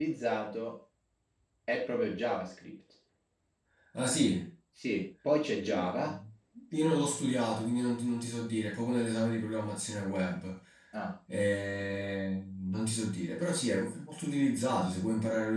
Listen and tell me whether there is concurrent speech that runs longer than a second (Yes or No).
No